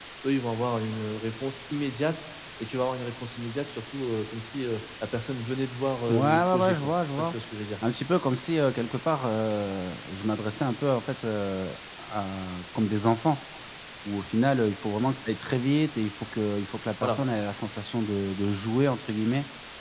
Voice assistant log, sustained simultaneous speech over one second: present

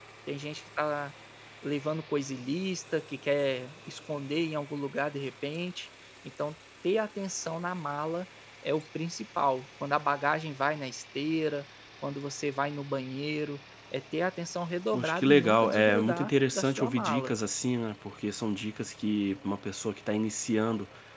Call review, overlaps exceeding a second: present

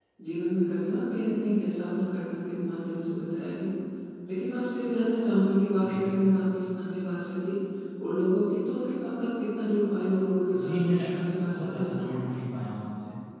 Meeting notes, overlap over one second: present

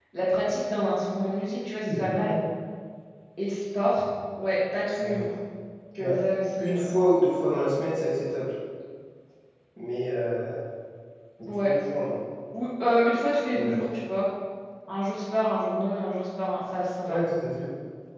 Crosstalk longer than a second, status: none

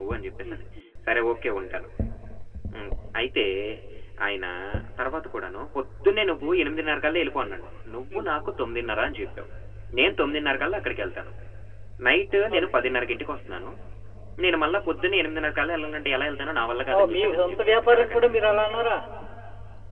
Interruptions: present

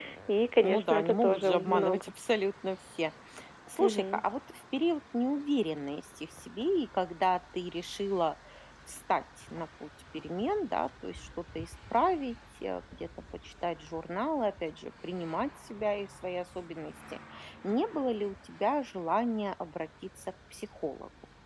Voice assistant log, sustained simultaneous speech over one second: present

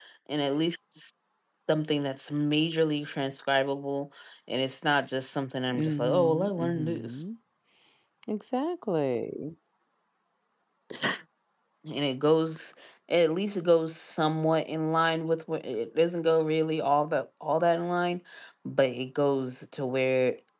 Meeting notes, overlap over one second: present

